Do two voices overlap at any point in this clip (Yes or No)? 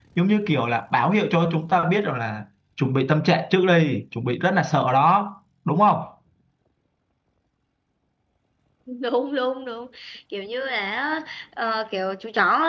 No